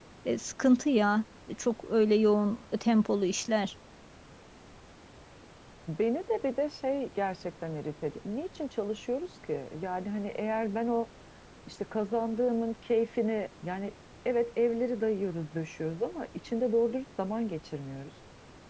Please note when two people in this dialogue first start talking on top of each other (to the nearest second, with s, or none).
none